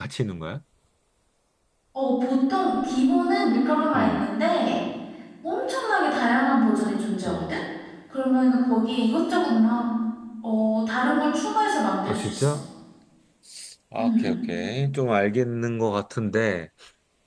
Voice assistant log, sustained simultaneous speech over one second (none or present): none